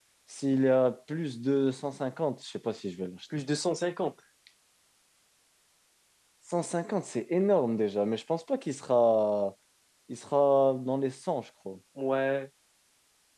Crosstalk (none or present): none